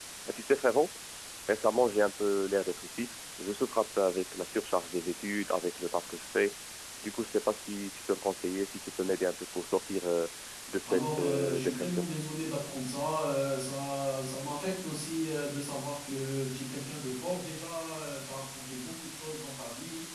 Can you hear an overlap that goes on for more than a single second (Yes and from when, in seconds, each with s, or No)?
Yes, from 10.8 s